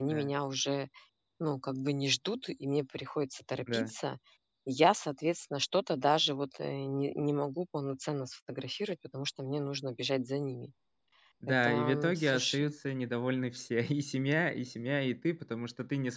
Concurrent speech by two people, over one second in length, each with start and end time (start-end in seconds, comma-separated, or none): 11.5-12.7